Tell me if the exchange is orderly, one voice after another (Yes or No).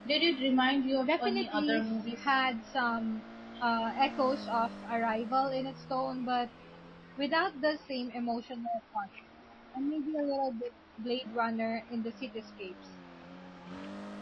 No